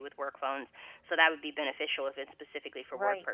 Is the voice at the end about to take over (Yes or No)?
Yes